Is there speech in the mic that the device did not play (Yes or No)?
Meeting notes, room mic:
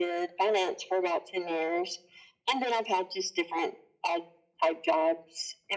No